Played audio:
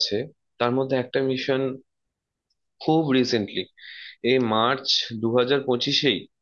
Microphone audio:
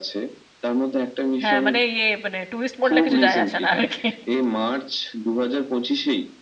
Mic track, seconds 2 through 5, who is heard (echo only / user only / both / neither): both